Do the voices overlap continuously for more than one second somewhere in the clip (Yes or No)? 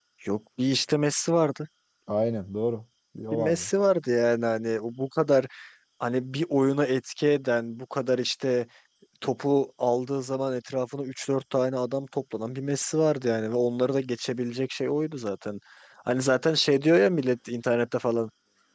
No